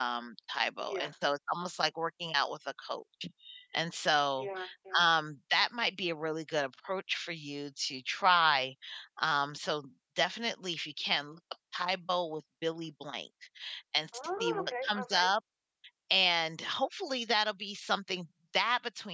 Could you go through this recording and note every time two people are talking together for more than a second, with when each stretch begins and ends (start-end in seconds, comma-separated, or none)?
14.1-15.3